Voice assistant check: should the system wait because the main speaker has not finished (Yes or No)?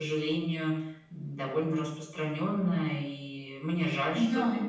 Yes